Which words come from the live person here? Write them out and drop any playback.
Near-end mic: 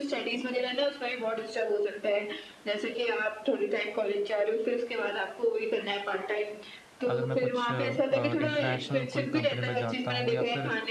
अगर मैं कुछ इंटरनेशनल कोई कंपनी में जाता हूँ या फिर

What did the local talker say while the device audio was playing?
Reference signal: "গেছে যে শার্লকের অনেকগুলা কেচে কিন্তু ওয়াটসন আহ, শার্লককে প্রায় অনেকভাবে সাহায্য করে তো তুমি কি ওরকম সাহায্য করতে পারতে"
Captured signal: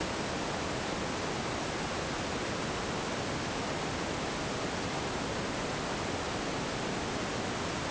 none

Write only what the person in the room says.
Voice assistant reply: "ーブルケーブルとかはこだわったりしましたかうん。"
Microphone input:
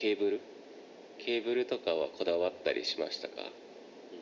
none

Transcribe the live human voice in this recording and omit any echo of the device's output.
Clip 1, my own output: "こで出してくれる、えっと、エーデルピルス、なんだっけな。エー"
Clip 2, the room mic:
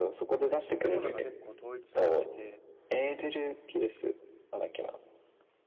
建物が結構統一されてて、

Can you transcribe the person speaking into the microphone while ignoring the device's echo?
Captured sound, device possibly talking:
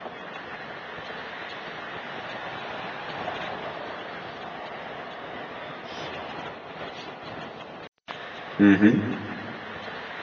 Ujú.

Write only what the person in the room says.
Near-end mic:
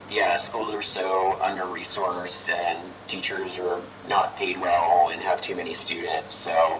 none

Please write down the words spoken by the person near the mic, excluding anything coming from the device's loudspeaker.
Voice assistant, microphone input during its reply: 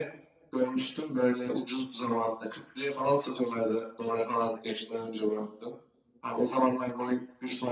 none

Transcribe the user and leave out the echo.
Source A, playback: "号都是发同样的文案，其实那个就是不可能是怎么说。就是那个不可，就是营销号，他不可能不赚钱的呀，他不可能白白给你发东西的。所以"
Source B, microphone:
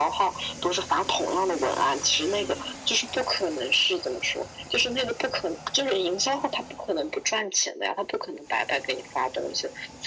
none

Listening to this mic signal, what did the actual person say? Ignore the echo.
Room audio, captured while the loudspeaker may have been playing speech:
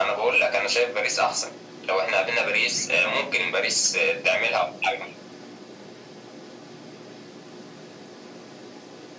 none

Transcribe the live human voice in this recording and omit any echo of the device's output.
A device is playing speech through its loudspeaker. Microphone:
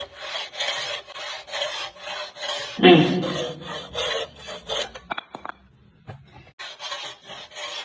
음,

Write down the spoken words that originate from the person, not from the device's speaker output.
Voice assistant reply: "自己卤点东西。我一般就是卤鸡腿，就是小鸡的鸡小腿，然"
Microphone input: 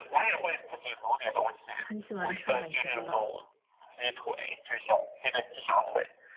很喜欢吃海鲜吧？

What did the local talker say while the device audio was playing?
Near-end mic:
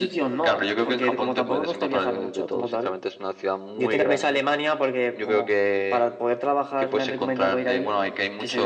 none

